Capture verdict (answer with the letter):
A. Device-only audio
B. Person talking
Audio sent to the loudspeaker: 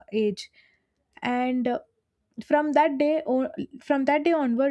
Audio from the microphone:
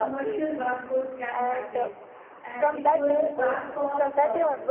B